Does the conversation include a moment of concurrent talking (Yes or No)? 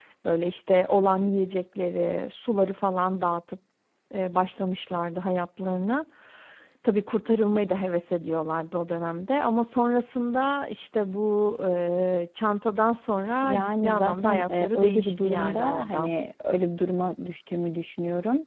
Yes